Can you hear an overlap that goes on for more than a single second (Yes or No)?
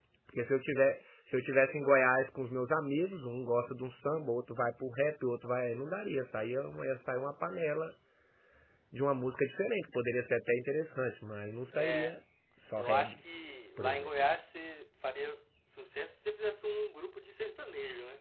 No